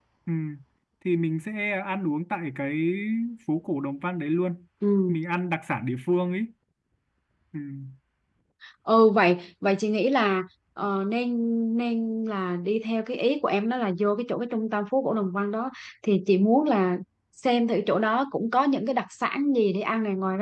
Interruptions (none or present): none